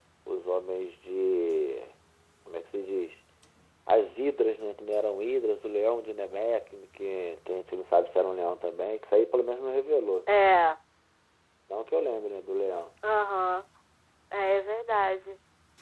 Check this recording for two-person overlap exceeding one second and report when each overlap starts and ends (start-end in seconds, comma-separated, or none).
none